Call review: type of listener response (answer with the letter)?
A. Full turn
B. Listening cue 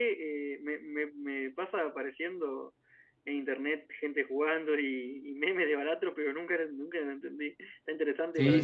A